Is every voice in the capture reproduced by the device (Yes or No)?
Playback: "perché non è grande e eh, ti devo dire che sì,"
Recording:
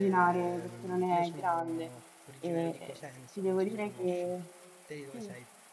No